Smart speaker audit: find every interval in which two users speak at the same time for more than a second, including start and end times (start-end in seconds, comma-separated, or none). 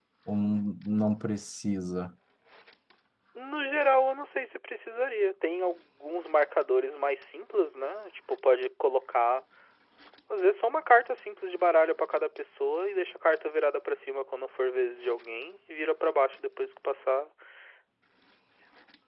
none